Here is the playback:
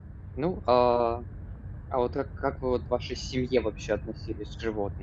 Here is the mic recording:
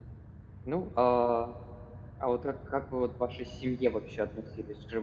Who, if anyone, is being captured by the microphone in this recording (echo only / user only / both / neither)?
echo only